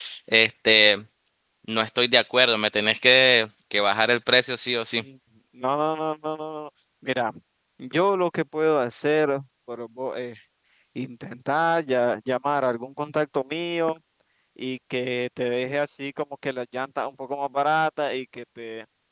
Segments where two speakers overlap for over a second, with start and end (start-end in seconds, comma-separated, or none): none